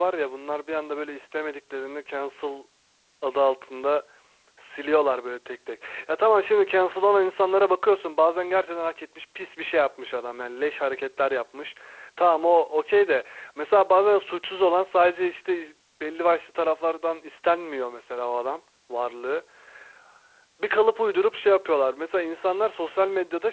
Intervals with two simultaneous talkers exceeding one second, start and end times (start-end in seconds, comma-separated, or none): none